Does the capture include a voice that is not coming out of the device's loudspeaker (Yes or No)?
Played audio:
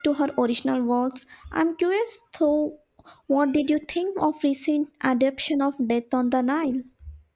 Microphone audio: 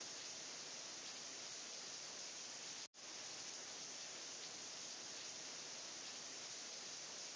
No